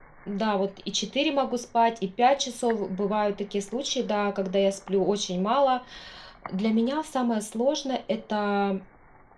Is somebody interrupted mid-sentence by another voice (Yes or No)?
No